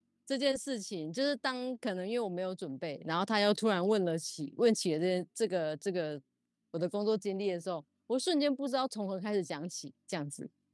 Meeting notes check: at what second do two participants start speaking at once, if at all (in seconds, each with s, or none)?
none